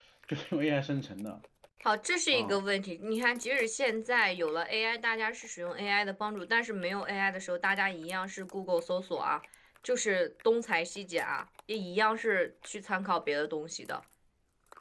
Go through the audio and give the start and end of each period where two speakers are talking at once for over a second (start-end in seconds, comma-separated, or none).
none